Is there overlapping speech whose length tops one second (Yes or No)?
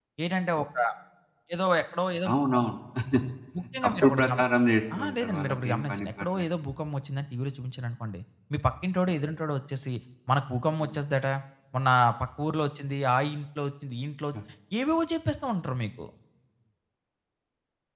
Yes